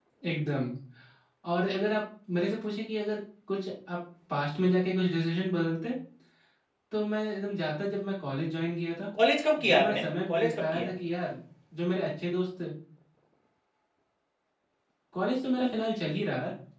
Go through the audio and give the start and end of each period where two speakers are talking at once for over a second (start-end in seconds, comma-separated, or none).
9.7-10.9